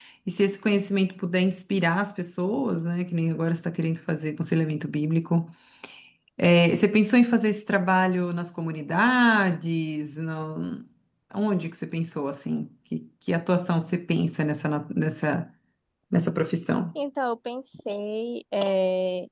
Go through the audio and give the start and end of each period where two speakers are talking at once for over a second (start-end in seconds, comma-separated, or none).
none